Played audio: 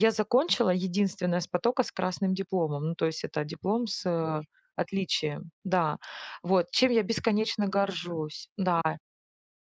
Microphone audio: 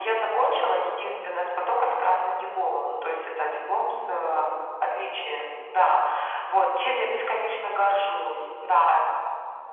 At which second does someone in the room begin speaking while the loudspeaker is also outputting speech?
none

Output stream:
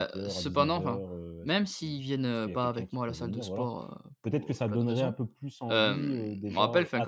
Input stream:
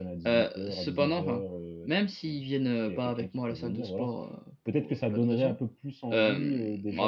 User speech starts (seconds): none

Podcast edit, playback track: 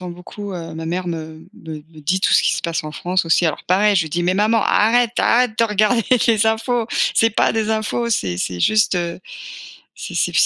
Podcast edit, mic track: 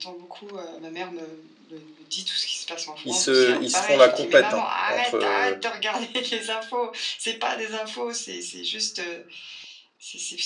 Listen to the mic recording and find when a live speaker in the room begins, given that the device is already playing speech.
3.0 s

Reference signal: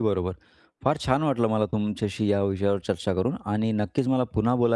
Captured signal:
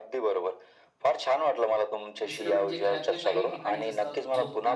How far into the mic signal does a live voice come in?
2.2 s

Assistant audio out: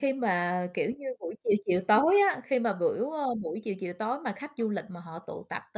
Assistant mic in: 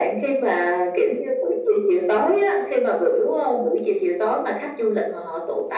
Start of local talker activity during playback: none

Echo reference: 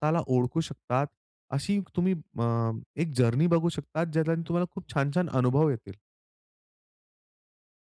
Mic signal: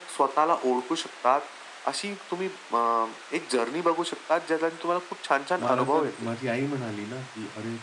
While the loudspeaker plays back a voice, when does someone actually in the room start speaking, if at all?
5.6 s

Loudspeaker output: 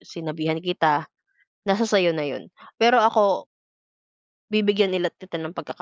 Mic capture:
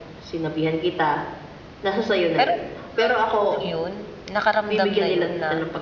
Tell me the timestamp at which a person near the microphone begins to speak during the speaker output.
2.4 s

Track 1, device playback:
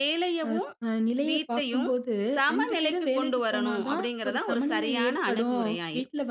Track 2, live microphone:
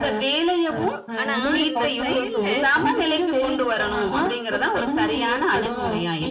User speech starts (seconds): 1.2 s

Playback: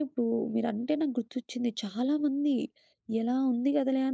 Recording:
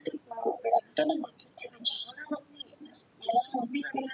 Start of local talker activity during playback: none

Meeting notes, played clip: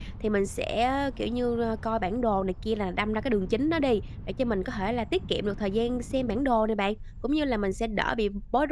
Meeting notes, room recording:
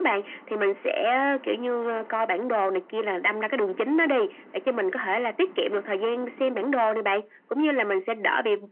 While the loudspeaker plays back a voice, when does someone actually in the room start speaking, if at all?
none

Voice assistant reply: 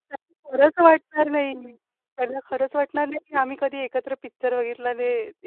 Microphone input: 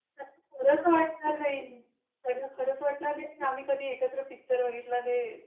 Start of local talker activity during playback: none

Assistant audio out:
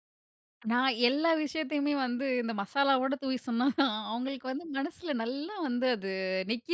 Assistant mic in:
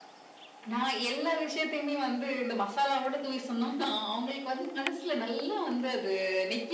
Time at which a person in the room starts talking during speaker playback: none

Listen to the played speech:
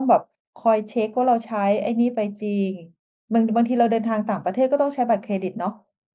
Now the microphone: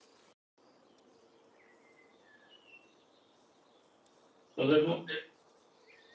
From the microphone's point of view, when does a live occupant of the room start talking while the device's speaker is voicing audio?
4.5 s

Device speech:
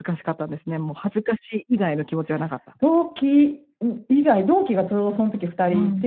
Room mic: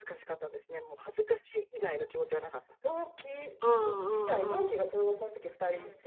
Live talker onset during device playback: 3.6 s

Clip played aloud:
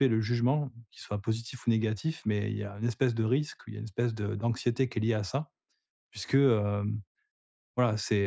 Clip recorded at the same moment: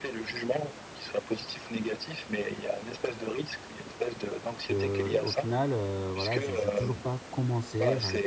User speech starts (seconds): 4.7 s

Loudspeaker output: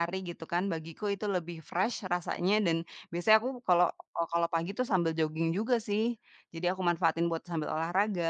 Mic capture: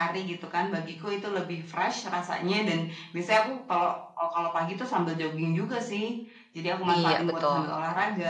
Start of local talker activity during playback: 6.9 s

